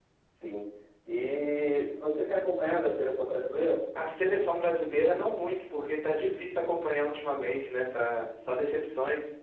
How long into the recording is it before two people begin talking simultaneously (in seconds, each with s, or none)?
none